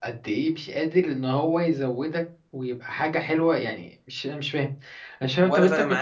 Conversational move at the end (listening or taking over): taking over